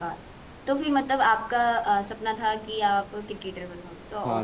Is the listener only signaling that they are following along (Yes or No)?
No